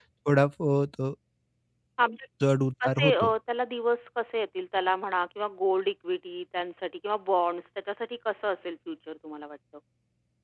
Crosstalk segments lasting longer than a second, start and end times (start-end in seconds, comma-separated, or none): none